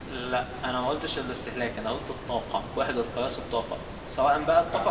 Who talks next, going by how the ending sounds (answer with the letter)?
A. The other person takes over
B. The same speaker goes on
B